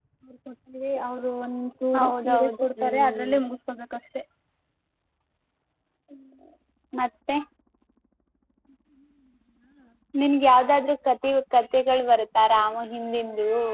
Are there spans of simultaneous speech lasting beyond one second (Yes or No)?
Yes